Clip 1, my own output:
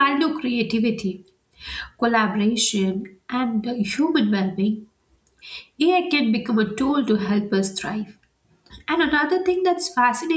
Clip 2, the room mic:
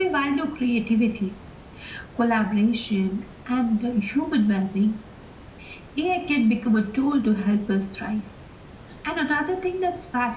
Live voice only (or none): none